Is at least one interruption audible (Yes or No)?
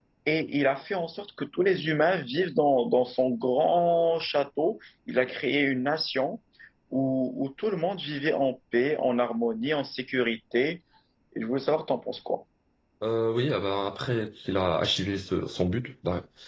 No